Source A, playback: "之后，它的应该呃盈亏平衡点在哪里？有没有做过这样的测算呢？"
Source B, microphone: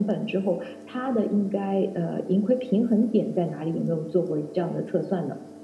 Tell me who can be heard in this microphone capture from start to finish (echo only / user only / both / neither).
echo only